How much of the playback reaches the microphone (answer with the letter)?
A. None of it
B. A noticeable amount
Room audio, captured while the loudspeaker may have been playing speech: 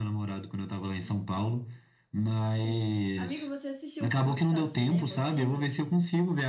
B